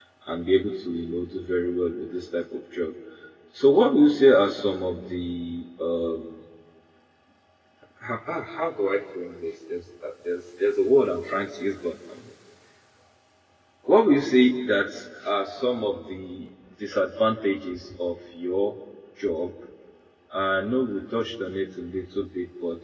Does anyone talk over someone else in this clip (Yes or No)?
No